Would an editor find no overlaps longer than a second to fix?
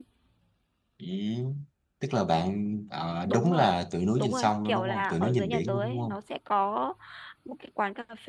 No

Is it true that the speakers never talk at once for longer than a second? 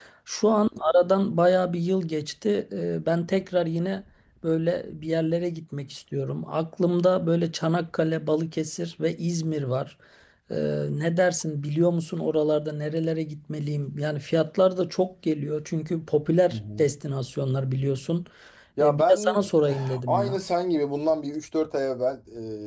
No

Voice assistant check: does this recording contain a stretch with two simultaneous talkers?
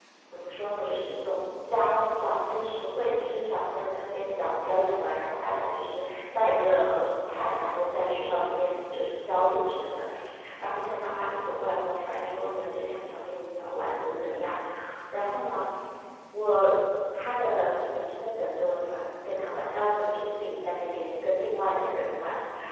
No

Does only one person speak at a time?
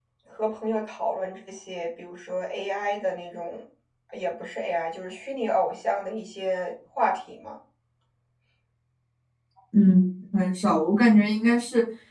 Yes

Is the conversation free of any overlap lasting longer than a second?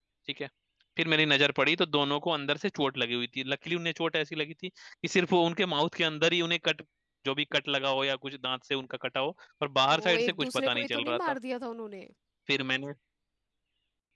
No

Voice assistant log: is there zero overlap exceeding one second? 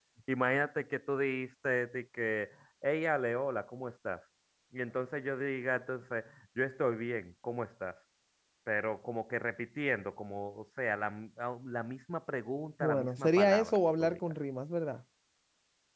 No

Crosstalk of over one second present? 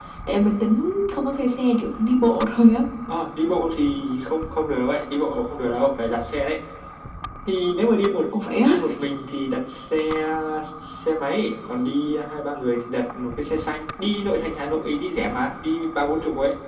No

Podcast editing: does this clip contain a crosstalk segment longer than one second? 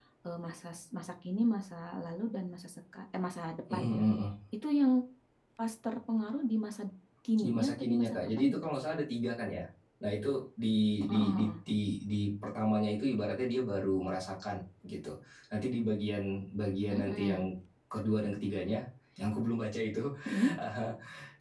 Yes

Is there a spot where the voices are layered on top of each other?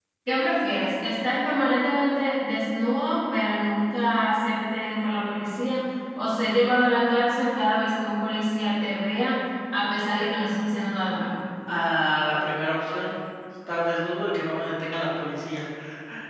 No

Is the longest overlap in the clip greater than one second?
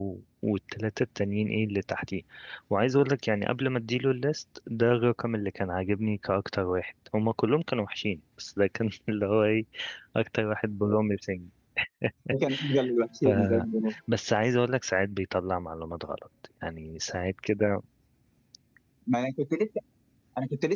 No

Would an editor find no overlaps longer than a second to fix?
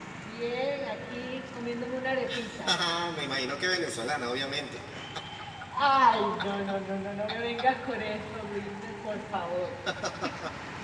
Yes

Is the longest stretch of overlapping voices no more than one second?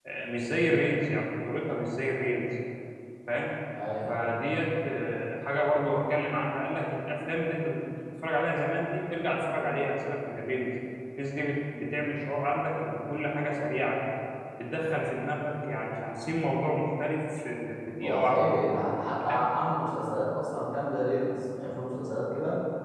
Yes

